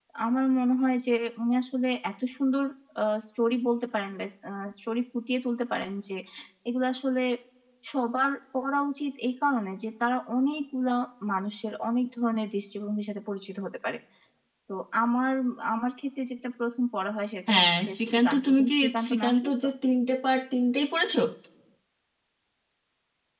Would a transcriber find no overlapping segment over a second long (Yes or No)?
No